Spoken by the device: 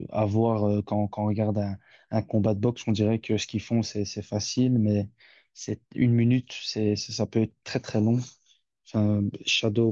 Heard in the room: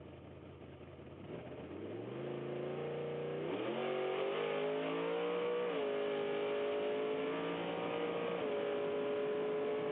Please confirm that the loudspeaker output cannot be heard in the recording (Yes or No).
Yes